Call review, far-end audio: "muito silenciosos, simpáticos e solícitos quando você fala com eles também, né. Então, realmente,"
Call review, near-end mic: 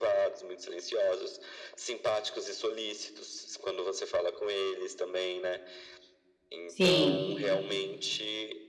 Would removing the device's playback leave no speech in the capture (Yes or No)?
No